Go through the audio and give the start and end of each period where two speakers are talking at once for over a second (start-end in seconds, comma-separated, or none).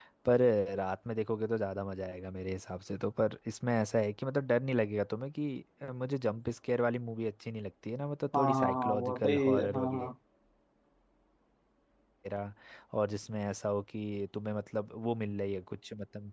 8.3-10.1